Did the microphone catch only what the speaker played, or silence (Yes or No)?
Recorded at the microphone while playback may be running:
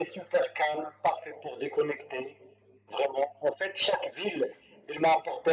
Yes